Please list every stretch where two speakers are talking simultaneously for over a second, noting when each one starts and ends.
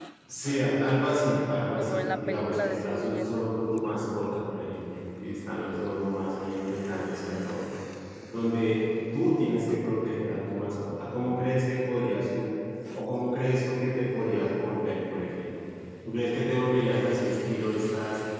1.8-3.4

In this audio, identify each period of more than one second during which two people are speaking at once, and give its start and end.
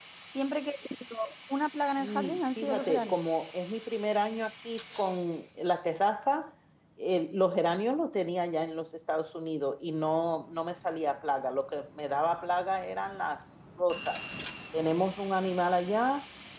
2.0-3.2

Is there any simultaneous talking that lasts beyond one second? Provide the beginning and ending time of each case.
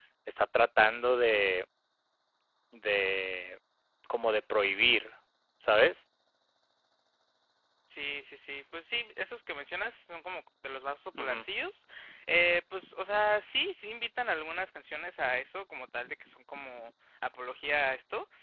none

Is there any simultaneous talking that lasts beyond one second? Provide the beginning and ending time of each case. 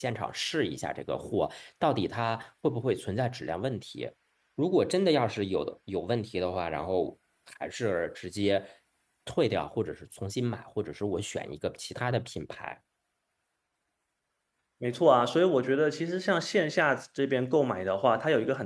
none

